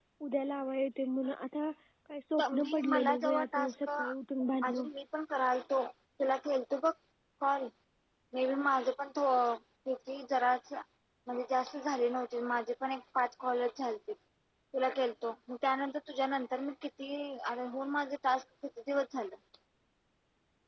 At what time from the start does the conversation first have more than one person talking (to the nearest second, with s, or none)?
3 s